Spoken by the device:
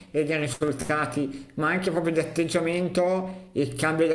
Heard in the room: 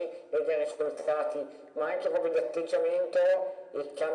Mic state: echo only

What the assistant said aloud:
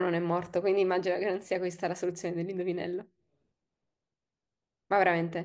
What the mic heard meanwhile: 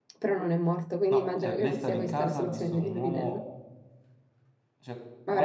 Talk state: both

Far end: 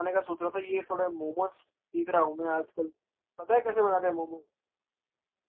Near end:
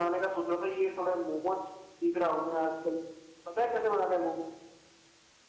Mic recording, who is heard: echo only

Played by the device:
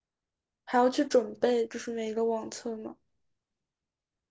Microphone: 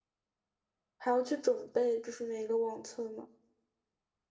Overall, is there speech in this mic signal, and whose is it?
echo only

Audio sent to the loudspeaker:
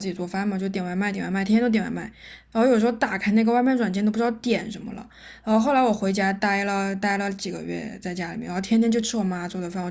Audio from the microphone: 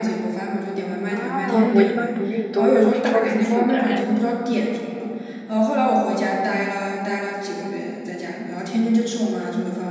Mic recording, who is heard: both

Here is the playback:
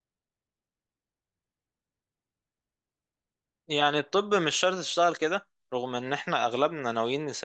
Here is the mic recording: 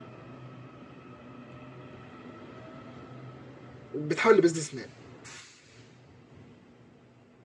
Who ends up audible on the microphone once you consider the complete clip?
user only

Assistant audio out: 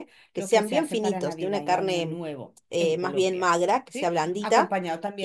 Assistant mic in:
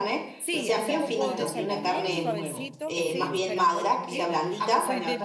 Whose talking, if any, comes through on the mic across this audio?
both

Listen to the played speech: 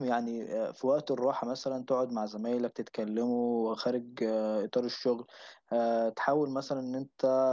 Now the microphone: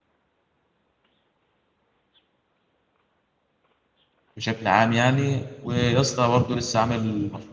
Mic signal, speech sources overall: user only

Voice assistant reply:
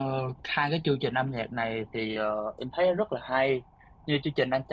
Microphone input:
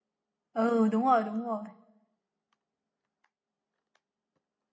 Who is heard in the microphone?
user only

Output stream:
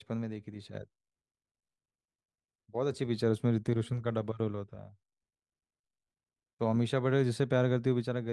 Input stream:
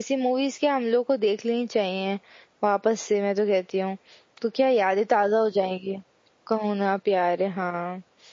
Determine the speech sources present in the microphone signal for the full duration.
user only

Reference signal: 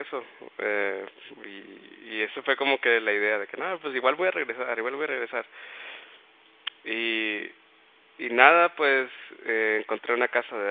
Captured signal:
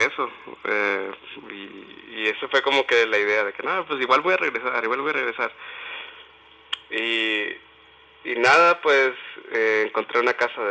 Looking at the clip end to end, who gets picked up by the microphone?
echo only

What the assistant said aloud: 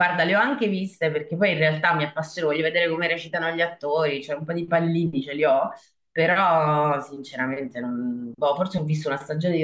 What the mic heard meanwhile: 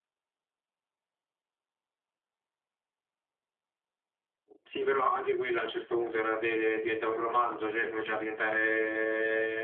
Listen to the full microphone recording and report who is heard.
user only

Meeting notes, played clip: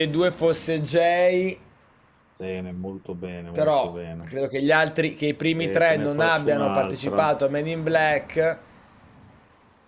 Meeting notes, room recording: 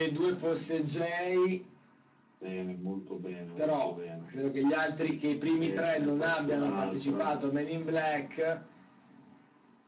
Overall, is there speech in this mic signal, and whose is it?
echo only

